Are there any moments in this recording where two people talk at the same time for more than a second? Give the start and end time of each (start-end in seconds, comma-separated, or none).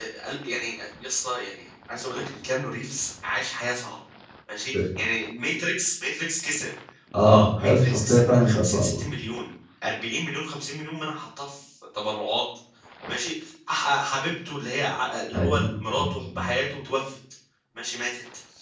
7.2-9.1